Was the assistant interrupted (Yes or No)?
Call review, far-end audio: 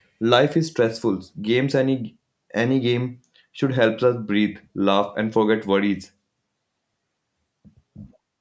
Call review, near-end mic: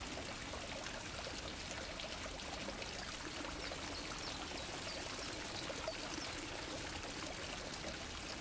No